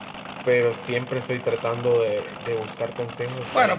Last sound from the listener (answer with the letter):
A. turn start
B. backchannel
A